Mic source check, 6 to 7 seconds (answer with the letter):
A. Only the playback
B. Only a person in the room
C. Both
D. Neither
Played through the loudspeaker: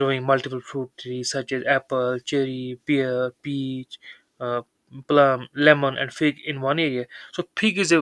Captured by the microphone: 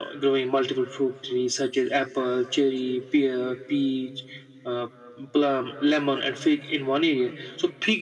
A